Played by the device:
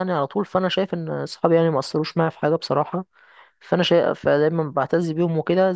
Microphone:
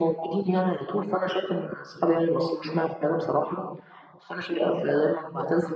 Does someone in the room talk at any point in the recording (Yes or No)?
No